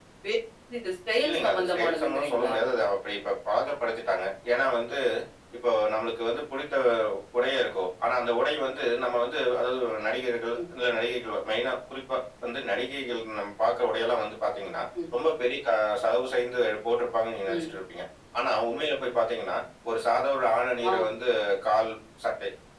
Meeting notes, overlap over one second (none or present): present